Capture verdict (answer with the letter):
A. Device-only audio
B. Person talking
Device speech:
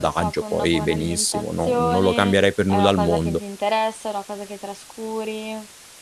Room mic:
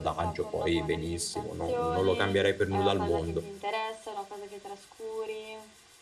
A